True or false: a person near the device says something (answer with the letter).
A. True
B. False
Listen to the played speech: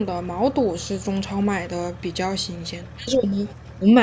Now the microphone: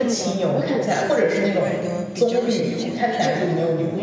A